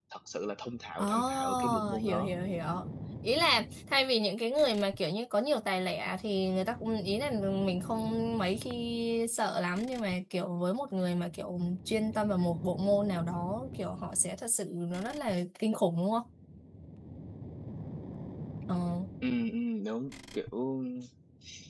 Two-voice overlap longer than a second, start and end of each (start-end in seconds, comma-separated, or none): 1.0-2.4